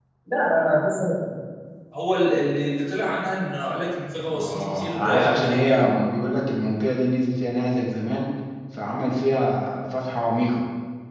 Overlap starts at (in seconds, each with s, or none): 4.2 s